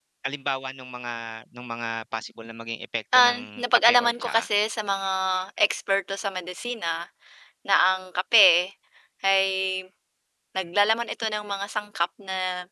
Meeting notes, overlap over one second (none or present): present